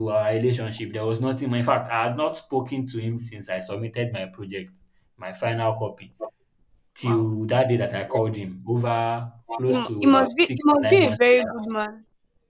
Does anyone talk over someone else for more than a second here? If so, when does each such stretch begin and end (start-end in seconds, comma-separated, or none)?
9.6-11.6